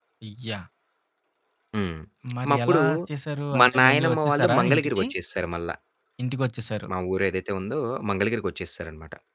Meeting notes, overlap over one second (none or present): present